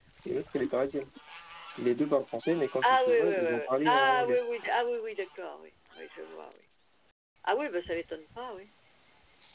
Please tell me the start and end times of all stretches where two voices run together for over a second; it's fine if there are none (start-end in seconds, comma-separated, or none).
2.8-4.4